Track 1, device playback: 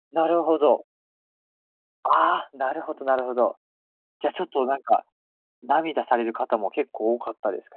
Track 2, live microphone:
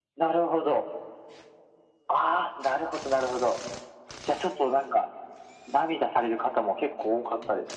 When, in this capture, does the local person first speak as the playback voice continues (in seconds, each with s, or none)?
none